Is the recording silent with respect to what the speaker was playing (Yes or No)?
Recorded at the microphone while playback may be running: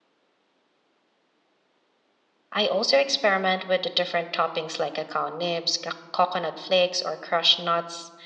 Yes